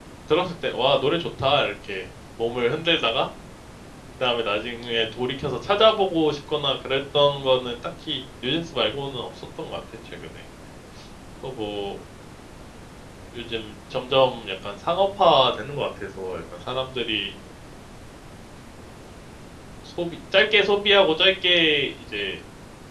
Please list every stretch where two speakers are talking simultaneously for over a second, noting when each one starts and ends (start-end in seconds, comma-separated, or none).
none